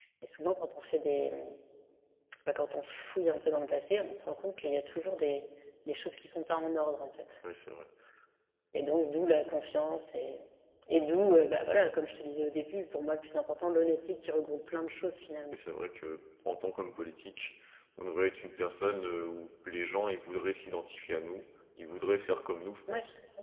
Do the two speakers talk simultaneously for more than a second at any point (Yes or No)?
No